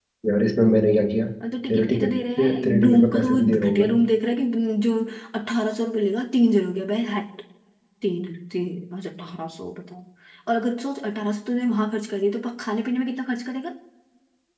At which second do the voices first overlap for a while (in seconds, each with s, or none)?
1.7 s